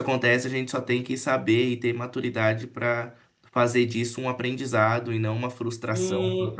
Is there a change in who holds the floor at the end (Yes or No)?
Yes